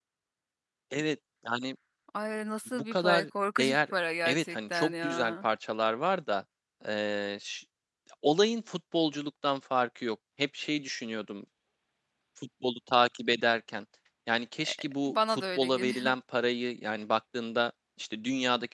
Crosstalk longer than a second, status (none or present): present